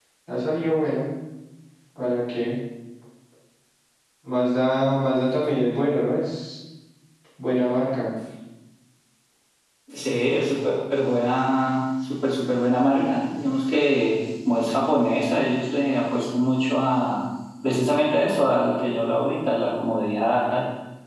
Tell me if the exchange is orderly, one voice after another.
Yes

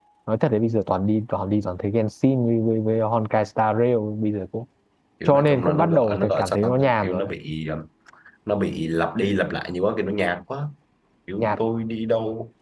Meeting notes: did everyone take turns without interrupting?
No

